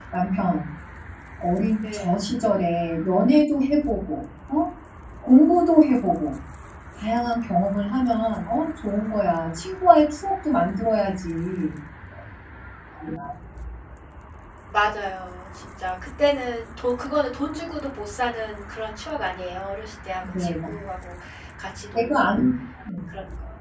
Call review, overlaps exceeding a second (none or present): none